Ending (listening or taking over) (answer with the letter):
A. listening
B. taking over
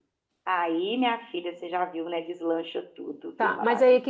B